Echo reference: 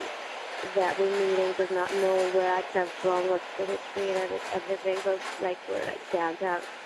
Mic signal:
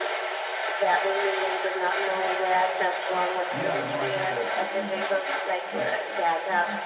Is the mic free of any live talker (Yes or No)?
No